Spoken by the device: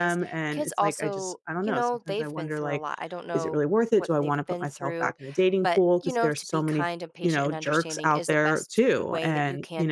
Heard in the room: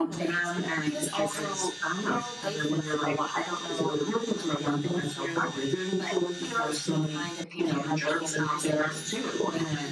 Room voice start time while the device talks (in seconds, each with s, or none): none